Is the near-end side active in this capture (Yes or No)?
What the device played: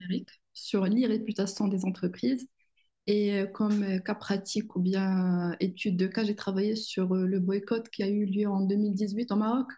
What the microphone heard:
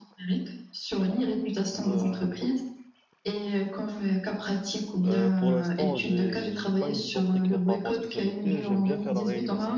Yes